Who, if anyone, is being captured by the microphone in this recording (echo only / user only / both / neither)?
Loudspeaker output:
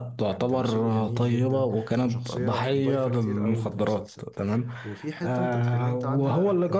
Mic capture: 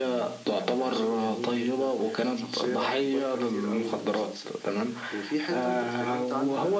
echo only